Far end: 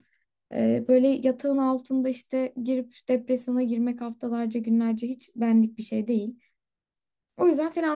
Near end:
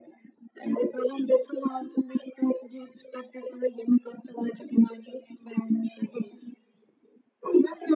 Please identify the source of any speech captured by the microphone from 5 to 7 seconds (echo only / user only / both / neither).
echo only